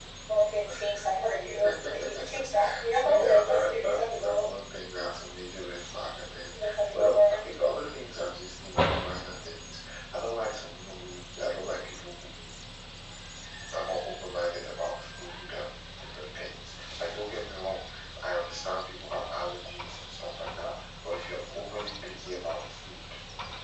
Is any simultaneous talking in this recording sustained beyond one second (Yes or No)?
Yes